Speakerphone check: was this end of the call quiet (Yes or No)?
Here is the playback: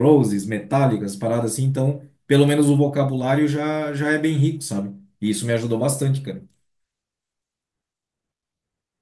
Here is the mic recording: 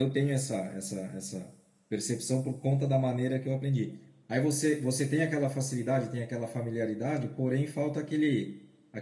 No